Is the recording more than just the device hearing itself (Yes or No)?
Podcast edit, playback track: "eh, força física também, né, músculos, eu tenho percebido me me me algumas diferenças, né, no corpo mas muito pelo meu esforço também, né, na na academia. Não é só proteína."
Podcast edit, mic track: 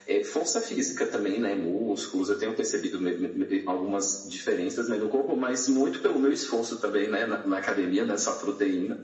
No